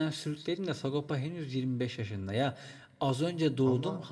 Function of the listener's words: listening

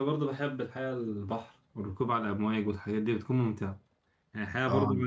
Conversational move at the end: listening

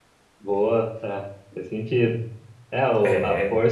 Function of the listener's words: listening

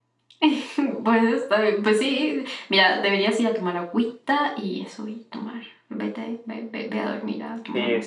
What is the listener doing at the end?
taking over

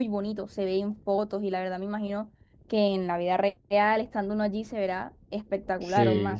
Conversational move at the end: taking over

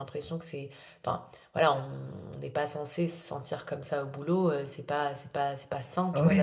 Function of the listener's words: taking over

